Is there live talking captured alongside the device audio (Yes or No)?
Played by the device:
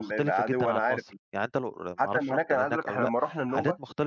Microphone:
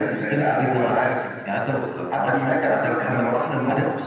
No